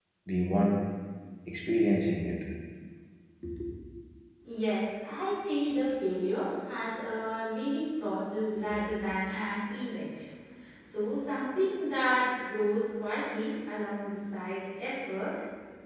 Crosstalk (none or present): none